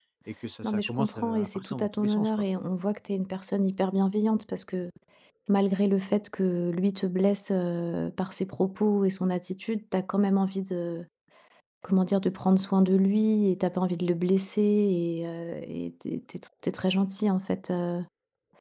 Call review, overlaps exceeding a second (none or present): present